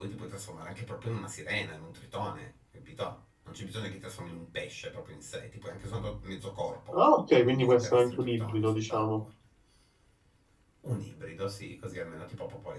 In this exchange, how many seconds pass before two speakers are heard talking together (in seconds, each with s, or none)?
7.4 s